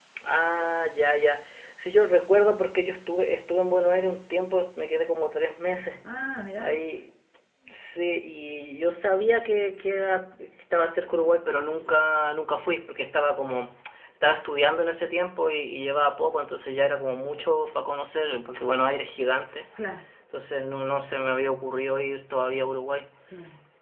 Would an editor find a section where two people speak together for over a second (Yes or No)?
No